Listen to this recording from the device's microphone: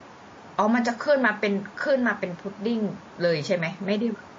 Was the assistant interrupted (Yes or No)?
Yes